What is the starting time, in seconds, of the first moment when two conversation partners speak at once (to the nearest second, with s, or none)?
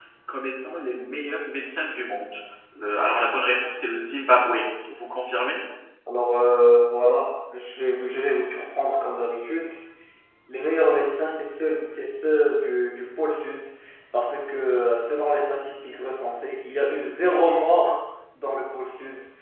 none